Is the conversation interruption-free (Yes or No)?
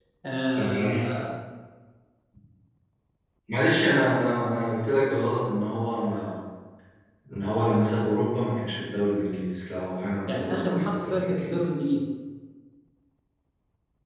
No